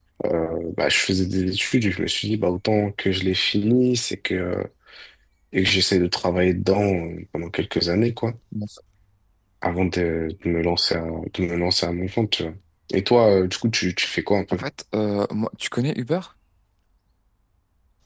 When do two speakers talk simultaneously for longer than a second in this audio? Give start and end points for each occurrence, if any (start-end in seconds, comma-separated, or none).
none